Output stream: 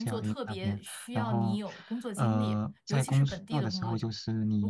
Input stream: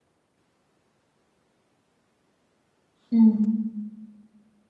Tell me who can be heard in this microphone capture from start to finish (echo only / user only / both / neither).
user only